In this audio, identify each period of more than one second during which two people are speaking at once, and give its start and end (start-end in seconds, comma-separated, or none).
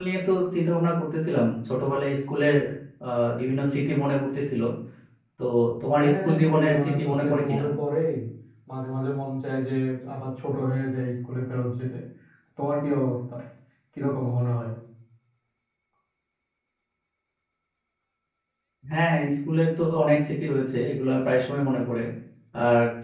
6.0-7.6